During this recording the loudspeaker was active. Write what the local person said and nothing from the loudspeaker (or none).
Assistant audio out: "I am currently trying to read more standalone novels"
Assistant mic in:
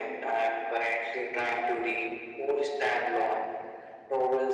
none